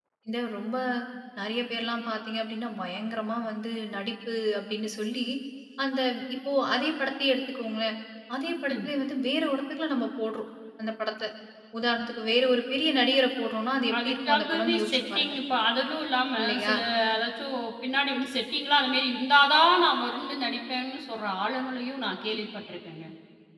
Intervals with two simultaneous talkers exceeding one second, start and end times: 14.0-15.3

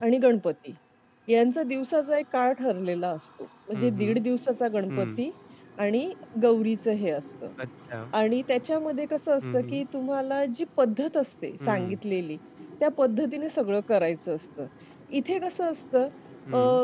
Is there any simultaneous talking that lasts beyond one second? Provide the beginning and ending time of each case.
none

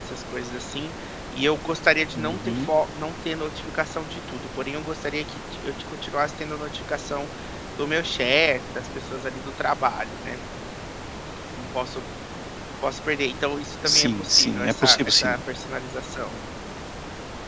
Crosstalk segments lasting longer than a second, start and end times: 13.9-15.4

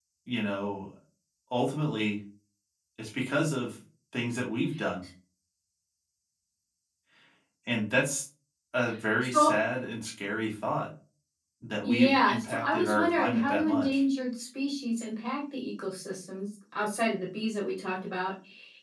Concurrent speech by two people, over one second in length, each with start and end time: 11.8-14.0

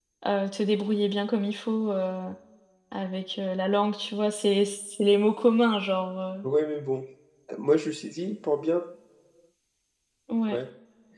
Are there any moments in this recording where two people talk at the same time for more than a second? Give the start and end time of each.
none

